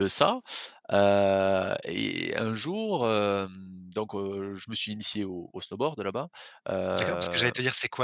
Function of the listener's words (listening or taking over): taking over